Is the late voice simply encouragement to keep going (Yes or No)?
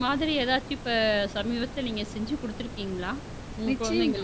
No